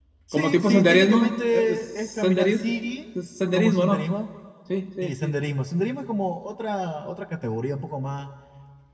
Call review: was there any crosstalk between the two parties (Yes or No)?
Yes